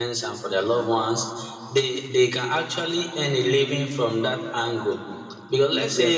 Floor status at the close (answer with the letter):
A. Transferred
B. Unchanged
B